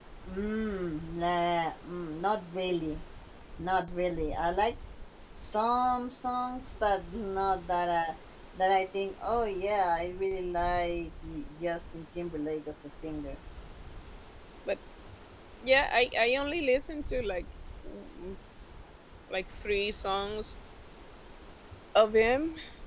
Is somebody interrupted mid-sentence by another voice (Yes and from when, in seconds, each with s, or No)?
No